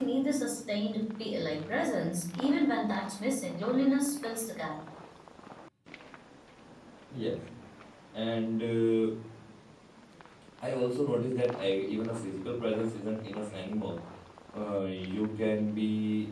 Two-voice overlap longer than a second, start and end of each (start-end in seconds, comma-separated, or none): none